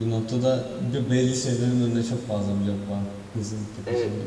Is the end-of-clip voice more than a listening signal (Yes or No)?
Yes